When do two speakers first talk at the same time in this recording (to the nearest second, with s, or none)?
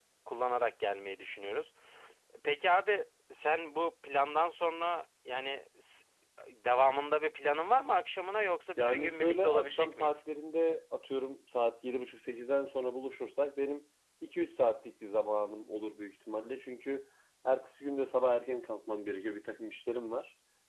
9 s